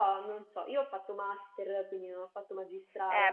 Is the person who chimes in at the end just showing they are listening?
No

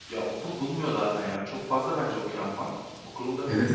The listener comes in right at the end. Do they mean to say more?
Yes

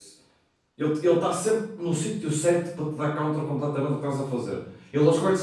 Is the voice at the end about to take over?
No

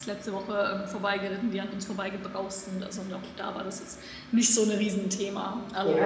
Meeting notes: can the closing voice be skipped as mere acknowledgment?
No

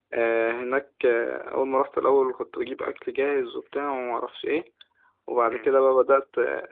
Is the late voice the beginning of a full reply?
No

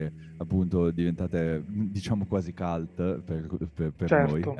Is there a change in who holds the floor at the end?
No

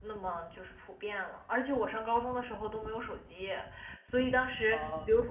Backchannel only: Yes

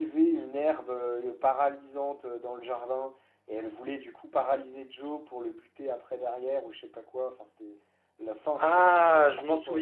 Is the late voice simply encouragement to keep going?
No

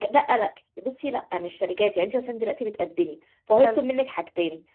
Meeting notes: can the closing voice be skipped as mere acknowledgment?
Yes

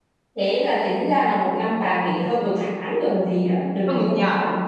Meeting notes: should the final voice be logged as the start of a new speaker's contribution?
Yes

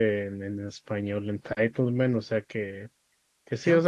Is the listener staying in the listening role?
Yes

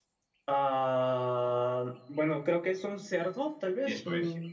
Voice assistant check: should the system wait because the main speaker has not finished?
No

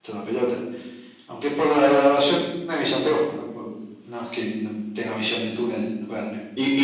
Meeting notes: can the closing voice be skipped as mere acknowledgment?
No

